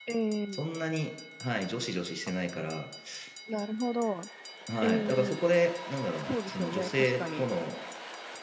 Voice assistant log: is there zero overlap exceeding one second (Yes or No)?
No